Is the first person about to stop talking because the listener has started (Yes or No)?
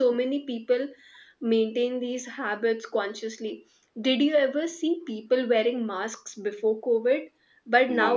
No